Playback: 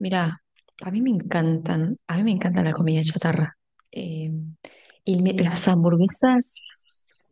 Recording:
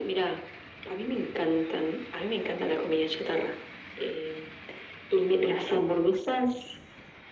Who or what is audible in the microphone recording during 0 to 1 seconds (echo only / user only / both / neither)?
echo only